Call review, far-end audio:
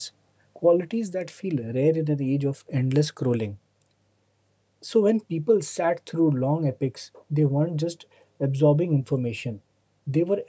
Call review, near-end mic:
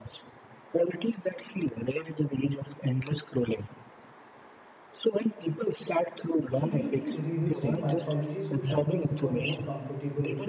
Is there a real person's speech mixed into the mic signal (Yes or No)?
Yes